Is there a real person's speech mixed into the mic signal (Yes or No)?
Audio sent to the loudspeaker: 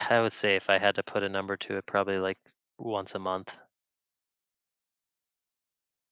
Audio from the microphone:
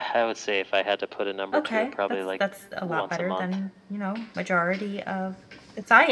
Yes